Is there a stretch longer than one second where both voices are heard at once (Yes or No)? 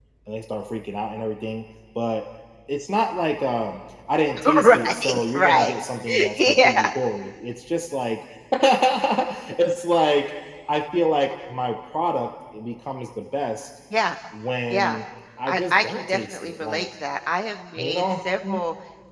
Yes